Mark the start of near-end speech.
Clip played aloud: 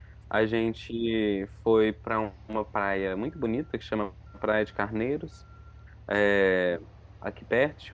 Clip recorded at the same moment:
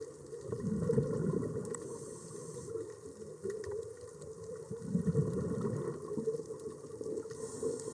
none

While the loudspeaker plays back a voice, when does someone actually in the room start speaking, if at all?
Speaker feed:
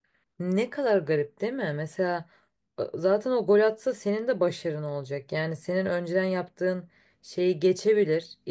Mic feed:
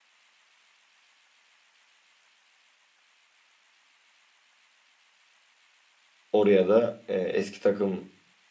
6.3 s

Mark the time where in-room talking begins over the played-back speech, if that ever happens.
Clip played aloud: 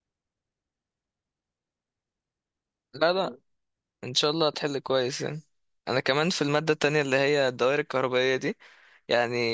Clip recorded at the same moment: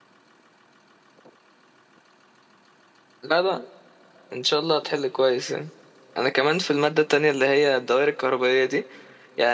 none

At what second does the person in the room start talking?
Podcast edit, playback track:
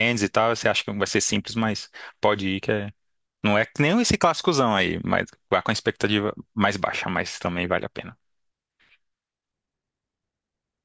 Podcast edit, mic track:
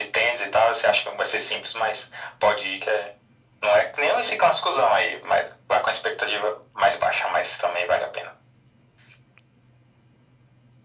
none

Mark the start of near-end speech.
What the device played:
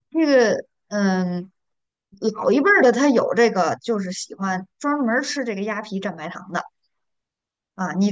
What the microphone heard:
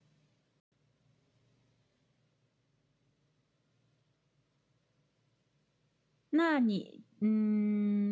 6.3 s

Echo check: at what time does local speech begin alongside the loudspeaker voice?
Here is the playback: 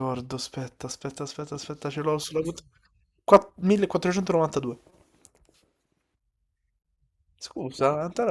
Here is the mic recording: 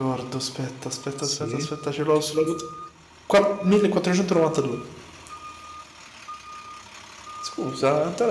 1.2 s

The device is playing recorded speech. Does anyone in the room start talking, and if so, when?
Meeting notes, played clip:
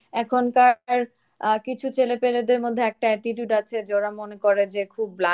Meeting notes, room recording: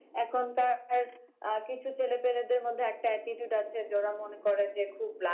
none

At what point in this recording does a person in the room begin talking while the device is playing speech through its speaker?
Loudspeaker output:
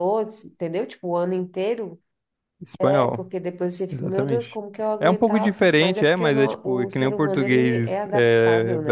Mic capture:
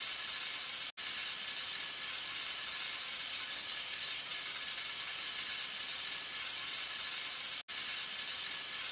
none

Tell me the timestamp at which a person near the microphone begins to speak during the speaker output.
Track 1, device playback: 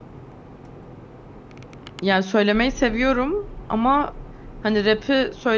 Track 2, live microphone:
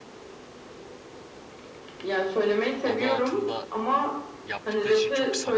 2.8 s

